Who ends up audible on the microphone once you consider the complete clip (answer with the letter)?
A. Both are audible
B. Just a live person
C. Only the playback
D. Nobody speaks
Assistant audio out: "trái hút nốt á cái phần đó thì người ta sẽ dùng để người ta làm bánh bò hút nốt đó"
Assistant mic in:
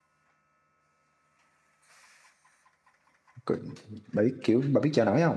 B